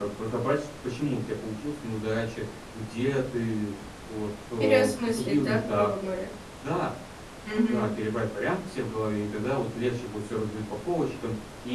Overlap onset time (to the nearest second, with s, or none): 5 s